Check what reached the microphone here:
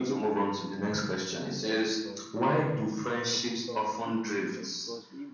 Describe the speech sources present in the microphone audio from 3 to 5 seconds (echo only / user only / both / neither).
both